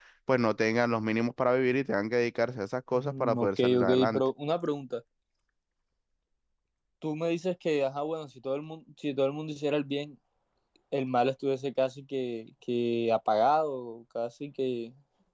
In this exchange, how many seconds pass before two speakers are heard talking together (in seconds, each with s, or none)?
2.9 s